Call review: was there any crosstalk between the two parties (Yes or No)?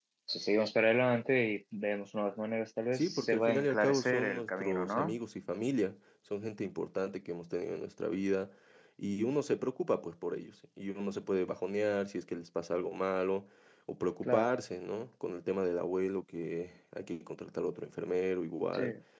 Yes